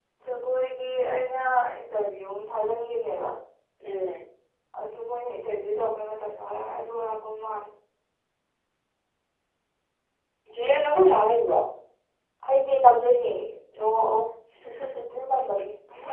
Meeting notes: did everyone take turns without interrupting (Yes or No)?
Yes